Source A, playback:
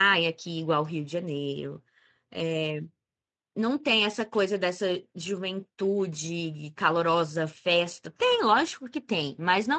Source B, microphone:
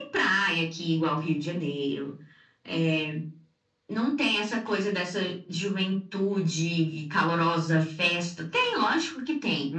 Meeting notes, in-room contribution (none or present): none